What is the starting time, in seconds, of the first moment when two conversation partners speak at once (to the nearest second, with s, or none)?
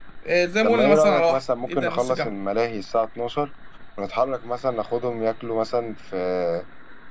1 s